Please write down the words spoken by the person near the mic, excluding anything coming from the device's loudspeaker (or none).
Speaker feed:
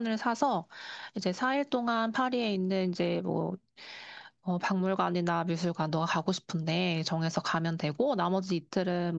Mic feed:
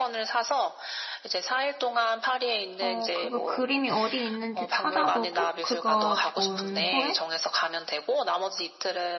어, 그거 그림이 어디 있는지 찾아보고, 그거 본 후에,